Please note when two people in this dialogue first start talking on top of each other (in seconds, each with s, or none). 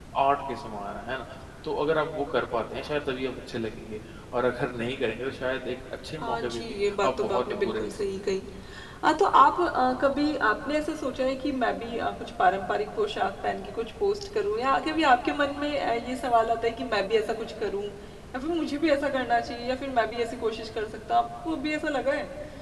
6.2 s